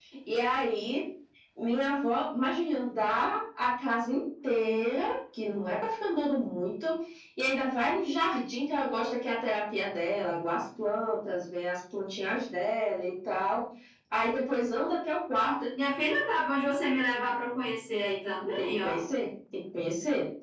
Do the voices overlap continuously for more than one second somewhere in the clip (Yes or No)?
No